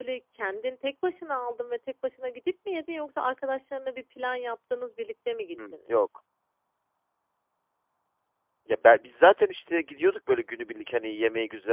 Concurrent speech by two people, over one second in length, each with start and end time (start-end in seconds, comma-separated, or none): none